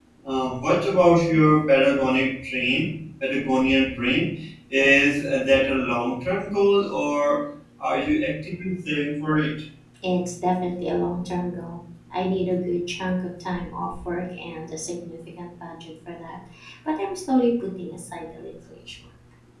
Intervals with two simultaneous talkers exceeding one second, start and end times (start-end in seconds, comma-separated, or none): none